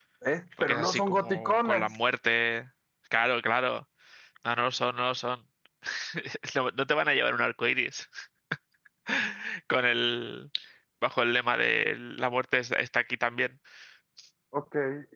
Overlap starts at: 0.6 s

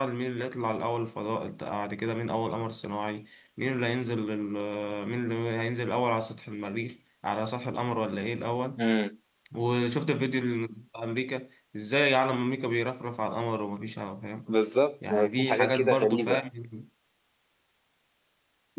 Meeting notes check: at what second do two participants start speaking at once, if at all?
15.1 s

